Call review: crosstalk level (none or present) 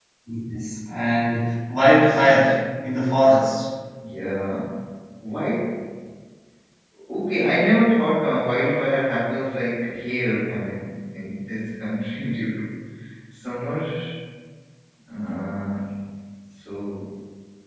none